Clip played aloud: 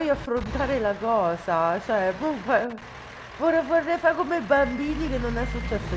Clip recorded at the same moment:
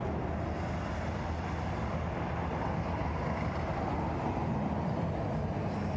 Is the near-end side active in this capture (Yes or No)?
No